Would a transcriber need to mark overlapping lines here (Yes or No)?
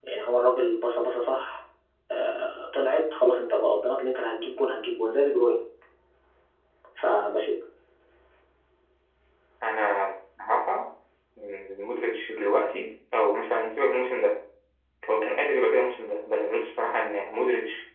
No